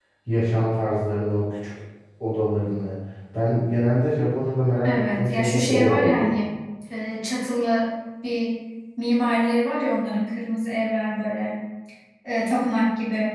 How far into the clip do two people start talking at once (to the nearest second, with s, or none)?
5 s